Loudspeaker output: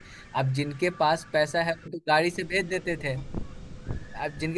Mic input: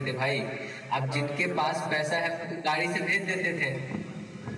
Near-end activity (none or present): present